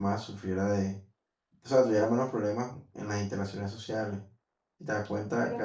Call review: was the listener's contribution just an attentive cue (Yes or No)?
No